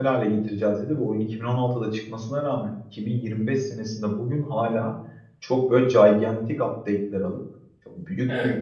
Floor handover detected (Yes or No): No